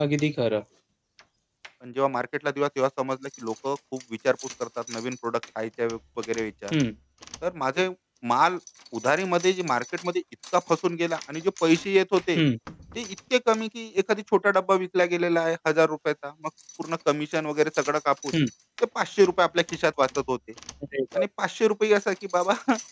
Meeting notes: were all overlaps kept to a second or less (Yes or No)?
Yes